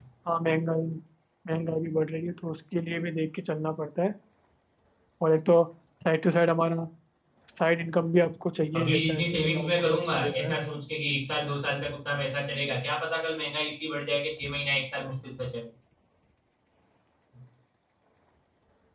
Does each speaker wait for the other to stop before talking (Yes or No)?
No